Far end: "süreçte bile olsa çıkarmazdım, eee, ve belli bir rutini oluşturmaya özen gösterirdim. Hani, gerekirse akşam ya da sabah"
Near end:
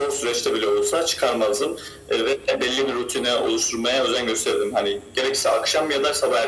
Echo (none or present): present